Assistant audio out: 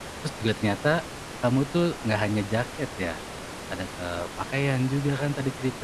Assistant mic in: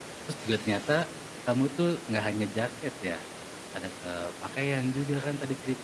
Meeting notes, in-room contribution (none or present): none